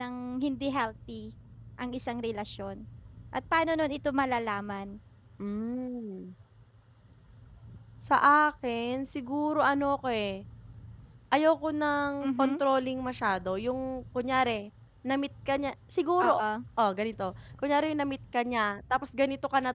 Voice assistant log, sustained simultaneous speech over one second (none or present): none